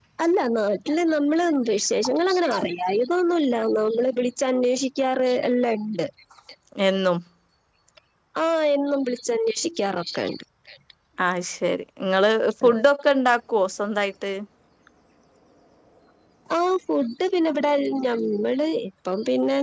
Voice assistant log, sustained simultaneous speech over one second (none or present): none